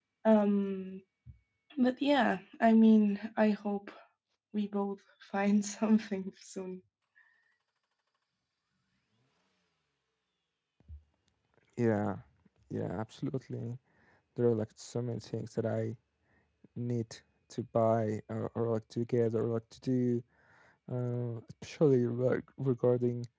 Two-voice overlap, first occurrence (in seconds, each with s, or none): none